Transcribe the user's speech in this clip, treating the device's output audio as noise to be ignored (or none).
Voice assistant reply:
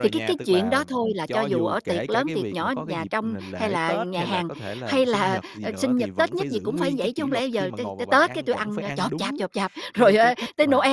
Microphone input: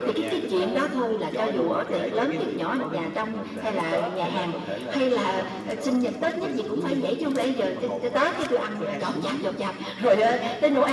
none